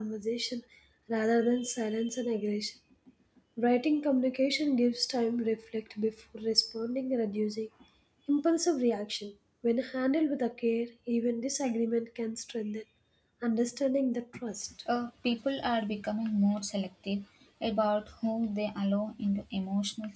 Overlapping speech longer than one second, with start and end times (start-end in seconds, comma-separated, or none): none